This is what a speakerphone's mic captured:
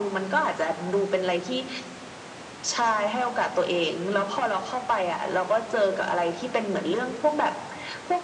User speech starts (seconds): none

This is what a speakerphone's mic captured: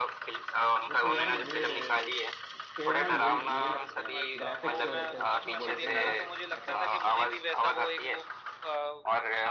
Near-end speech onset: 0.9 s

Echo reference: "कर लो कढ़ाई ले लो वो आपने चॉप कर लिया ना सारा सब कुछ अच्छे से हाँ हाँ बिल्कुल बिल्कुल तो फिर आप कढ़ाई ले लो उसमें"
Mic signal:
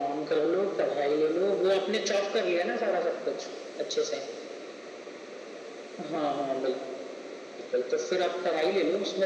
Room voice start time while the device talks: none

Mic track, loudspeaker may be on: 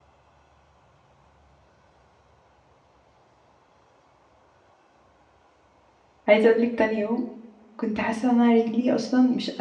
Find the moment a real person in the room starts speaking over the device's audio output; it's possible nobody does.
6.3 s

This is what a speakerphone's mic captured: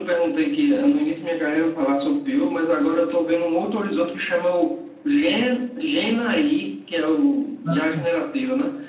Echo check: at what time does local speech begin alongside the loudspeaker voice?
7.6 s

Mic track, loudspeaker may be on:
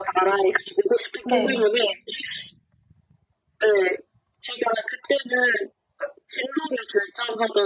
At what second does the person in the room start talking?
1.2 s

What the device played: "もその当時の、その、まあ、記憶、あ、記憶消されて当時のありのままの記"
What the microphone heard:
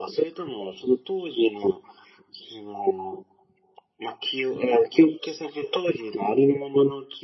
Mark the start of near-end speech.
none

